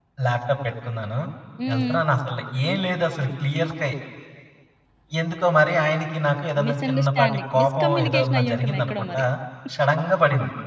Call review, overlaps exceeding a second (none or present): present